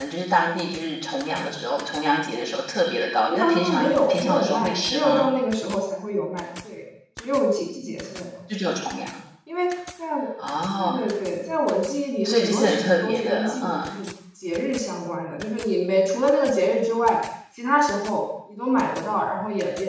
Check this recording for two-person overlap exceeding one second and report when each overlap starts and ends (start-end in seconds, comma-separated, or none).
3.3-5.3, 12.2-14.0